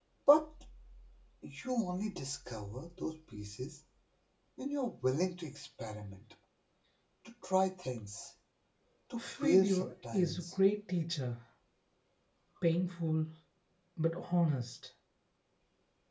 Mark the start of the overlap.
9.2 s

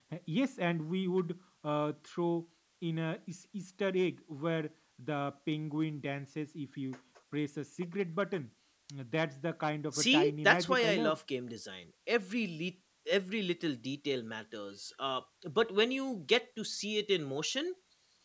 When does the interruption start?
9.9 s

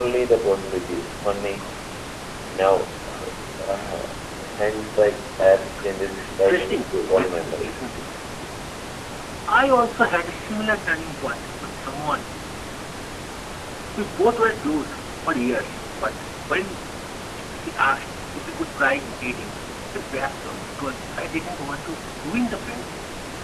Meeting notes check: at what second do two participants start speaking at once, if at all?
6.2 s

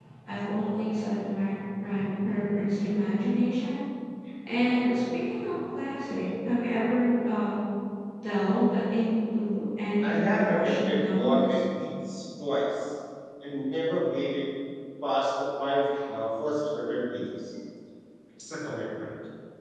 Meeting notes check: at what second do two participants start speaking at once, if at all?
10.0 s

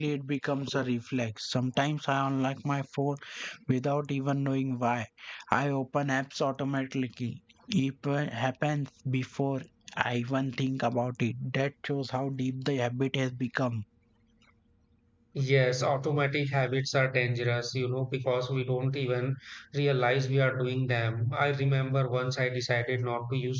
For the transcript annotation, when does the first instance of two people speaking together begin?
none

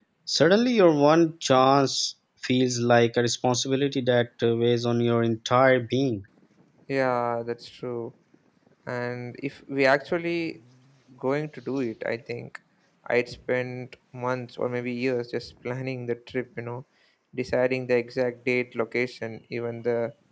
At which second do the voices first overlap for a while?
none

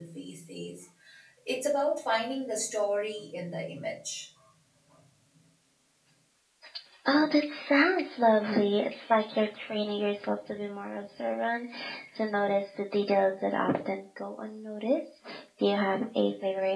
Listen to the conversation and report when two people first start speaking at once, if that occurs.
none

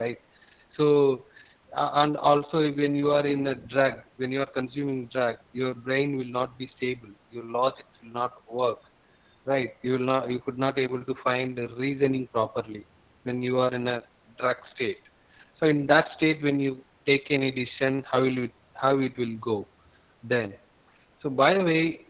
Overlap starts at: none

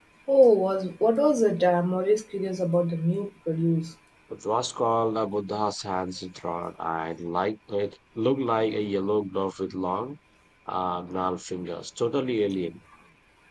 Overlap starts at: none

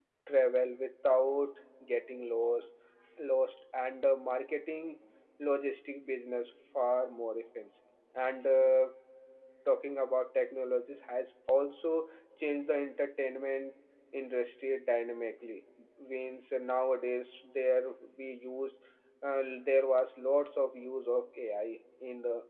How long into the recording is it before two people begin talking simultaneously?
none

